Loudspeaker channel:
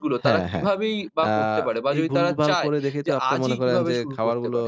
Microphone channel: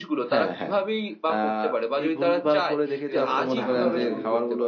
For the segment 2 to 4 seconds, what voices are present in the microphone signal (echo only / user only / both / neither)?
both